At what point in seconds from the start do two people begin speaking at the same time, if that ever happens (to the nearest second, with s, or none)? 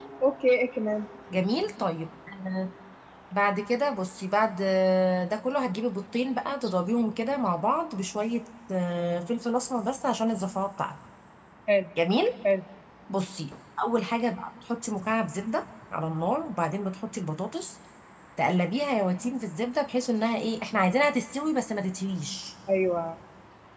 none